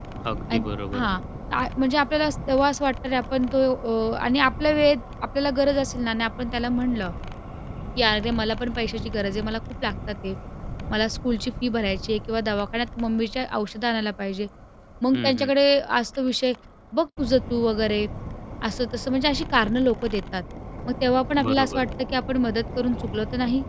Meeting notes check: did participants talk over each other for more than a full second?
No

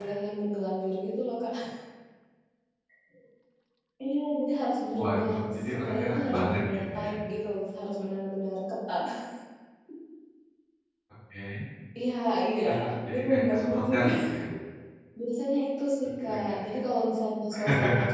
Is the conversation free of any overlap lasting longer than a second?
No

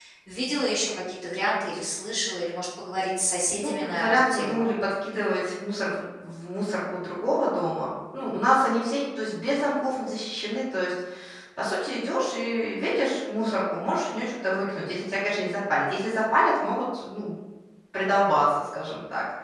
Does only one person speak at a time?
No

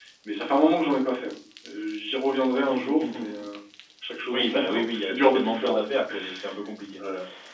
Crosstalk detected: Yes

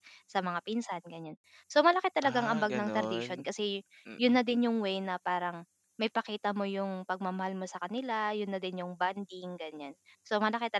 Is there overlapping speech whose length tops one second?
Yes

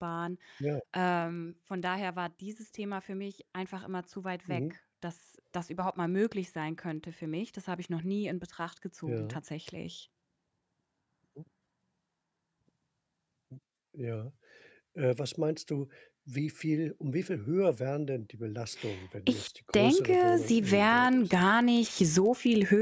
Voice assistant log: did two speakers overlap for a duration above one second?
Yes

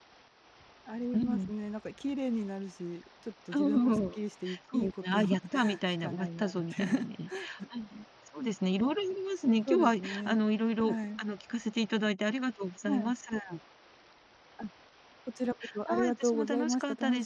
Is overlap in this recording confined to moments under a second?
No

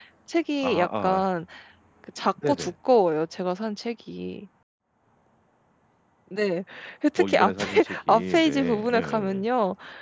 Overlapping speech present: Yes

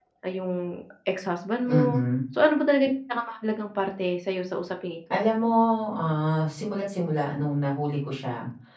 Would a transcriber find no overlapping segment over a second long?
Yes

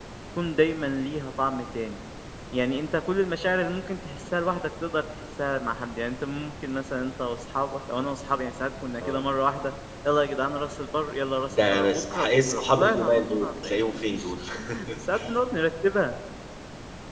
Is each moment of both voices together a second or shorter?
No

